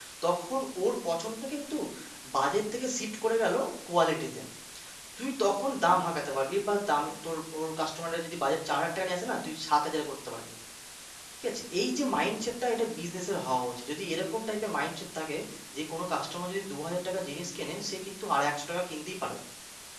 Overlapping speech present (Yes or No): No